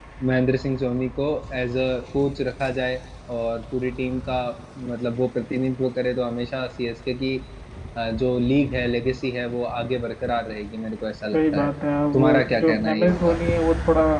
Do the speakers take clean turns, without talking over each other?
No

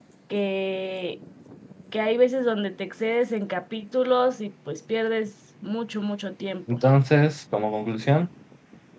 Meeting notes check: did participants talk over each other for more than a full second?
No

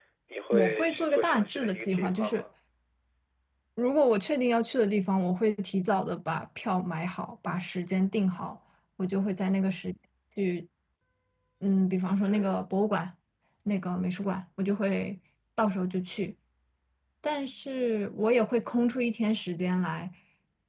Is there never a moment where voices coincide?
No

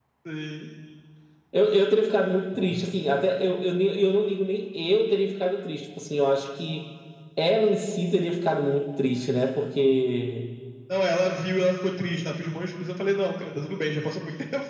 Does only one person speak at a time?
Yes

